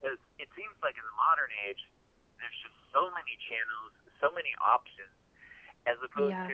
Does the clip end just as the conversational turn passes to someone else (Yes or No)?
No